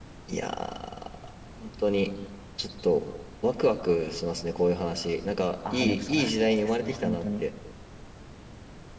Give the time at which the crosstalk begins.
6 s

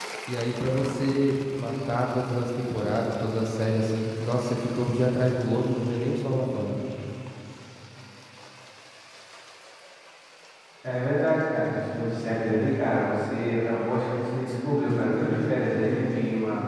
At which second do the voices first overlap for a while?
none

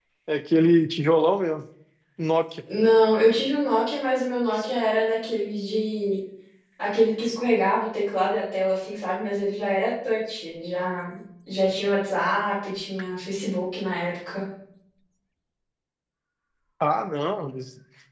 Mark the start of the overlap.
none

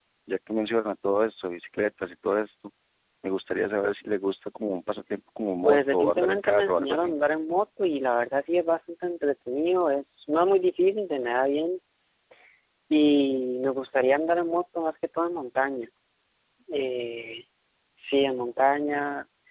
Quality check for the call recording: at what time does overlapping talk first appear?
6 s

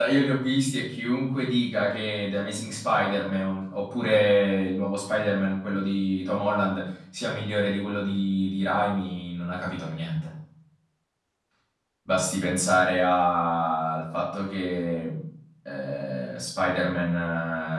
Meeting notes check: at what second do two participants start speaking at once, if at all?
none

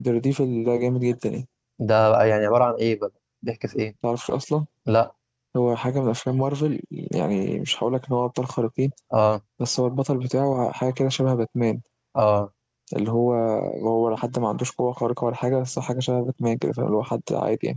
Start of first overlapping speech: none

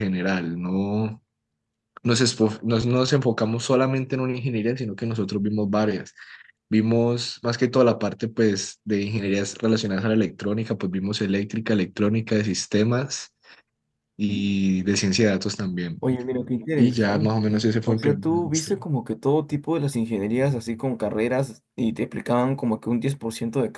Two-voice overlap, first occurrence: 17 s

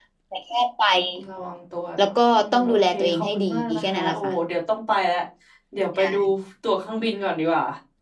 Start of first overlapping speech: 2 s

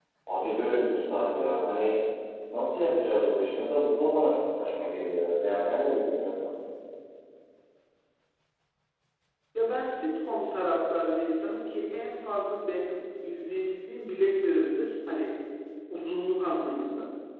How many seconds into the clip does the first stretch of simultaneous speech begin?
none

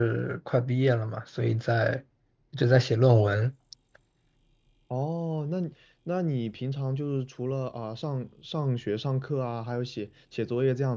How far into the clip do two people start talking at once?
none

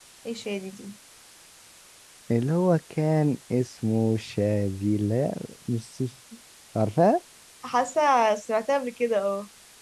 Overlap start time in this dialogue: none

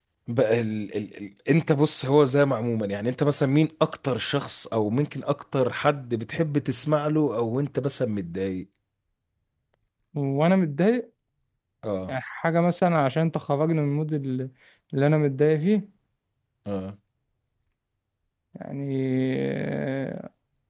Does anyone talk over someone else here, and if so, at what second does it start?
none

